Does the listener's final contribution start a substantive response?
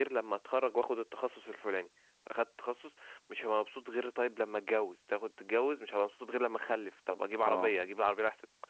No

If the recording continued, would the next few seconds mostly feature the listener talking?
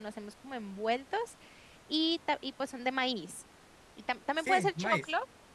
No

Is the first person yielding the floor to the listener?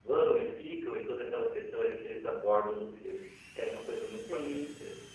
Yes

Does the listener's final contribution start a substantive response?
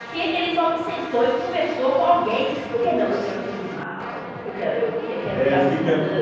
Yes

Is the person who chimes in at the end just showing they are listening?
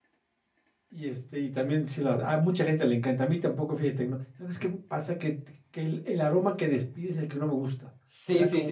No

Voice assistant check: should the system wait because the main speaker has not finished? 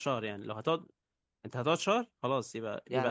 No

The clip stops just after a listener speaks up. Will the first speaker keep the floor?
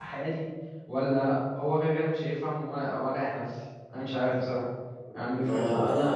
No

